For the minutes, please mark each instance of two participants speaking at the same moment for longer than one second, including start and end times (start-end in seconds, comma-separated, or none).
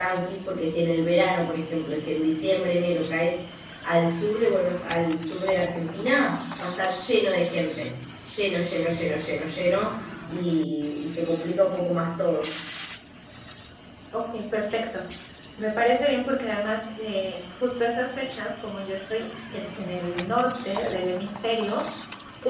none